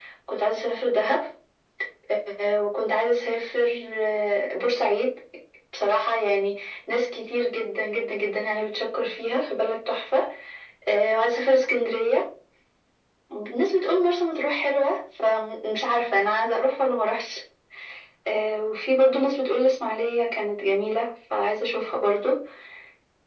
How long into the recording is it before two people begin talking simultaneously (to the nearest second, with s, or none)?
none